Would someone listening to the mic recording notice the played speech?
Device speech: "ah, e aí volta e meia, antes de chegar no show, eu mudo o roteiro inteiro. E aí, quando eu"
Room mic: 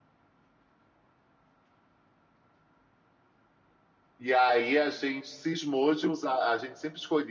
No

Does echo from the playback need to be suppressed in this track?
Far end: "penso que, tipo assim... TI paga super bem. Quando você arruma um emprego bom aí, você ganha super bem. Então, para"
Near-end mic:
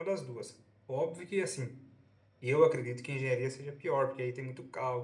No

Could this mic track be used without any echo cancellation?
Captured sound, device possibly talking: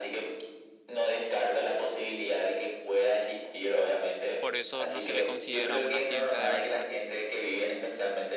No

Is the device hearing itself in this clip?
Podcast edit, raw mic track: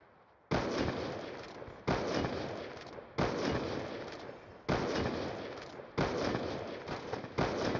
No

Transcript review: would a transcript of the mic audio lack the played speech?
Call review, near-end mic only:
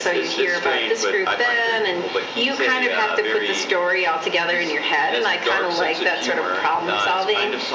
No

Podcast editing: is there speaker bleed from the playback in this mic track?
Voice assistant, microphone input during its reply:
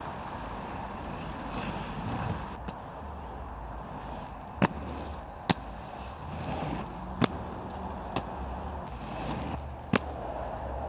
No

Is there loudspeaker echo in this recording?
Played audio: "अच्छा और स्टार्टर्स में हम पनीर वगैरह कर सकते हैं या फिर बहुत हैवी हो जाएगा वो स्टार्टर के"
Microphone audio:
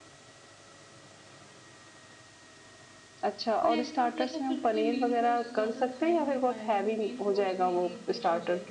Yes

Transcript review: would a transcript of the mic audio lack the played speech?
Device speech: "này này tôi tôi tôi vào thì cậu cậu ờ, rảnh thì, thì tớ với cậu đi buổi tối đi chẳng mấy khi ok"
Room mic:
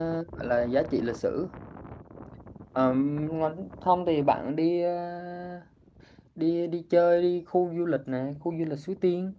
Yes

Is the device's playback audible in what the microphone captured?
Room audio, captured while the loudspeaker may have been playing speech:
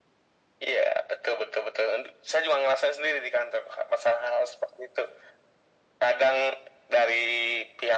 Yes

